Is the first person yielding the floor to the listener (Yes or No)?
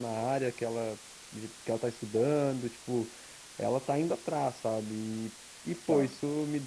No